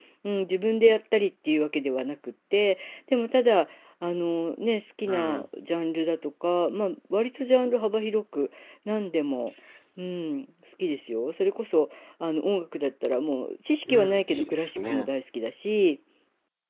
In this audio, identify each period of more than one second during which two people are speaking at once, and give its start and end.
13.8-15.1

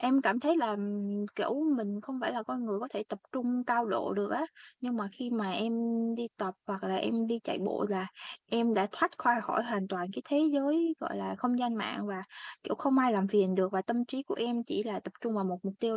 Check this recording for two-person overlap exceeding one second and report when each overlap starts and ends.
none

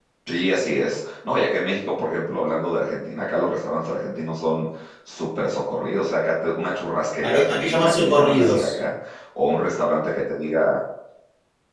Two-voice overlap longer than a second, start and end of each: 7.2-8.8

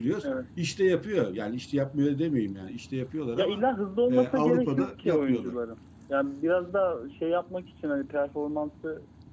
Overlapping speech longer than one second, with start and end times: 4.1-5.5

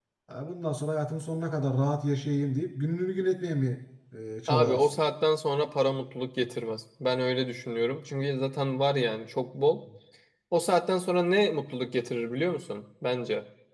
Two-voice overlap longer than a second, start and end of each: none

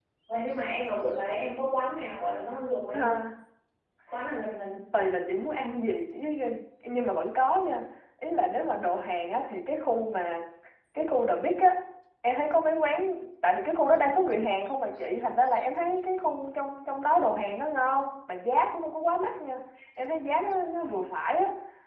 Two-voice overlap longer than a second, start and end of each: none

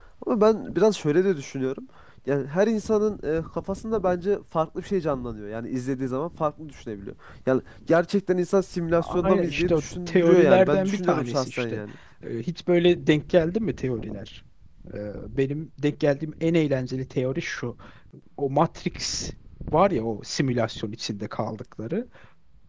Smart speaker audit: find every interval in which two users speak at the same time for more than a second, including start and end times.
9.2-11.8

